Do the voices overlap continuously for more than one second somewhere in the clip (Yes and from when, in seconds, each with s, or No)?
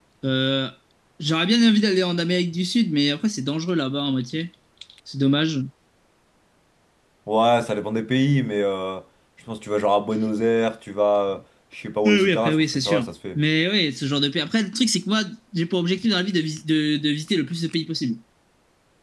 Yes, from 12.0 s